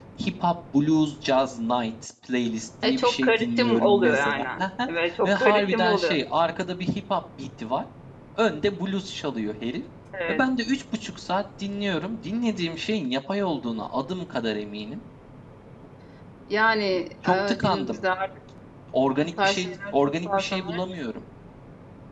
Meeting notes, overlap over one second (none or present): present